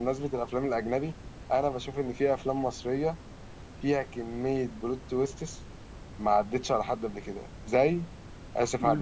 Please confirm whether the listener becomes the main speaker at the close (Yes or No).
Yes